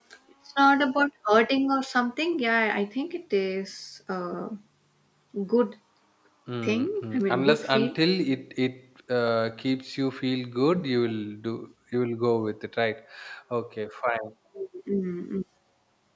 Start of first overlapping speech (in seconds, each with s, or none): 6.6 s